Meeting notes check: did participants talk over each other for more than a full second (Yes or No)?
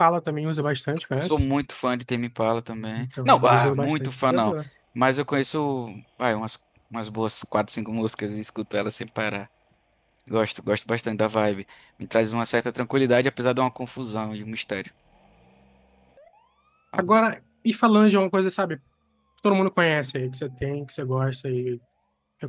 Yes